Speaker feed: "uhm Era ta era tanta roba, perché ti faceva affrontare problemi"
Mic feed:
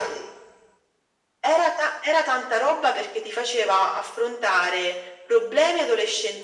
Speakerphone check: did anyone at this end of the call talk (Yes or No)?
No